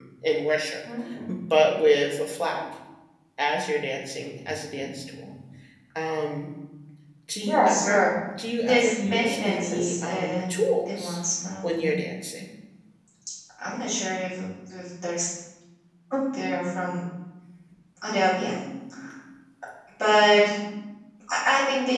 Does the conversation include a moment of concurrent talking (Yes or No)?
Yes